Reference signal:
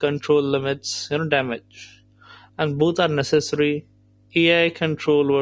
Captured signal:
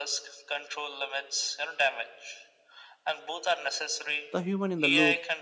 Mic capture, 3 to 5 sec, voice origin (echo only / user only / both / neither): both